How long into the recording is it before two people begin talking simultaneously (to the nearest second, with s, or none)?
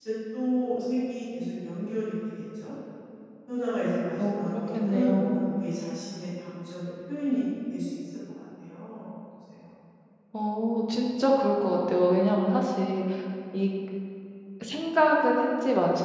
4 s